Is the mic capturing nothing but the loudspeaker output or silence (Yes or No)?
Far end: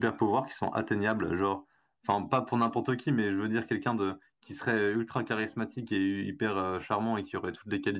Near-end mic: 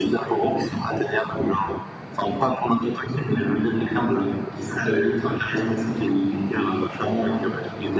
Yes